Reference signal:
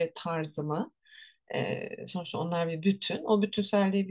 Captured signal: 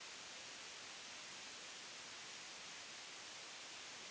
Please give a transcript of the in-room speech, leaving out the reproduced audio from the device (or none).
none